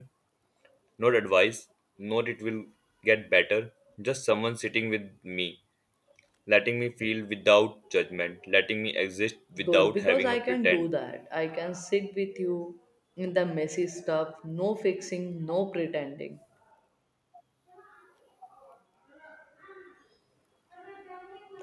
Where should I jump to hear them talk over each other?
10 s

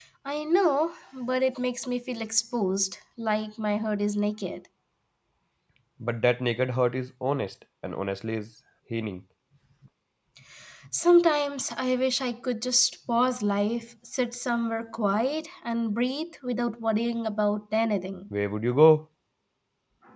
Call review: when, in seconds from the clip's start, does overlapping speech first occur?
none

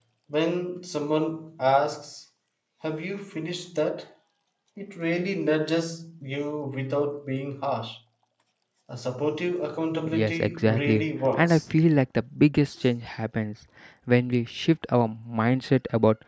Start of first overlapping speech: 10 s

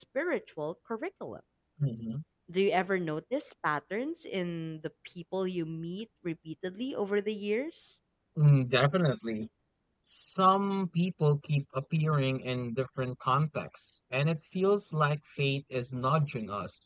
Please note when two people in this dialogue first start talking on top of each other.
none

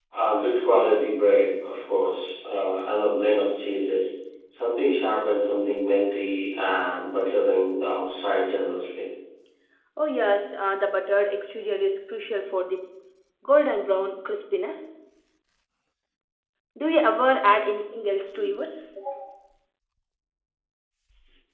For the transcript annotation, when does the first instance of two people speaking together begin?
none

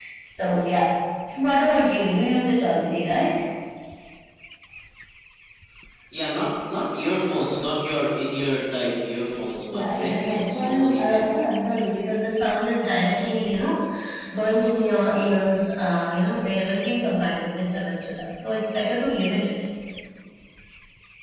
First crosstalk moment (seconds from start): 10 s

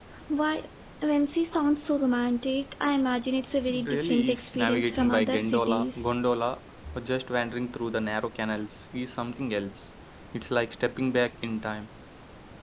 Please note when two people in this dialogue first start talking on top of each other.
4 s

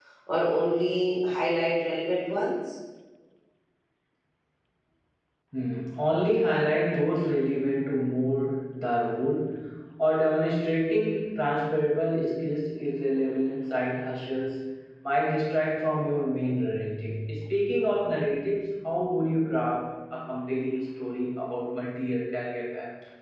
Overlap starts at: none

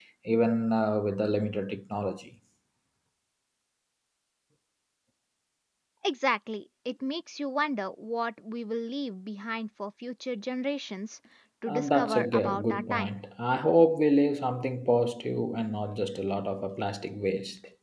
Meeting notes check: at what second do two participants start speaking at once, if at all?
12 s

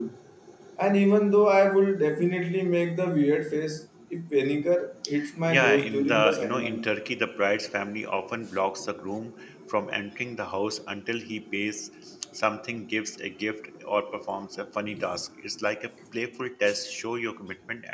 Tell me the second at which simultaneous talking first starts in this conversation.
5 s

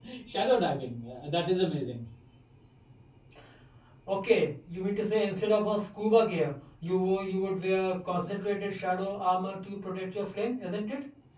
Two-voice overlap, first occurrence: none

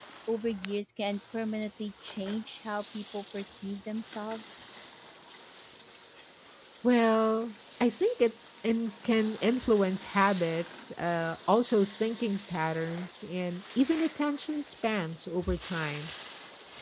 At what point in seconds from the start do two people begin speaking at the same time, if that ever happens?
none

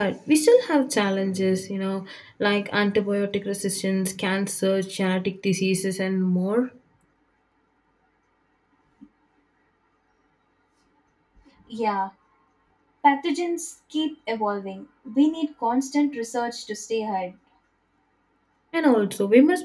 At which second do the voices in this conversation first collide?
none

